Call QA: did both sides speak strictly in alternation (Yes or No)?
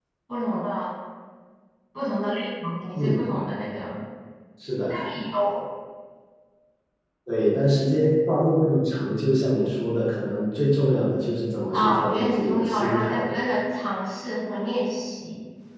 No